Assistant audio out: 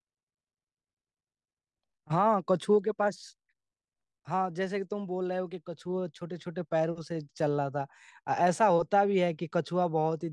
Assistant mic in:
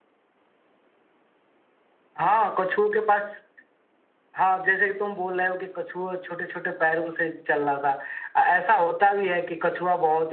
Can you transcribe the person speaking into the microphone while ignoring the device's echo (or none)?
none